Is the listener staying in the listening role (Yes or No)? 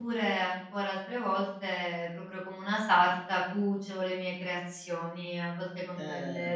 Yes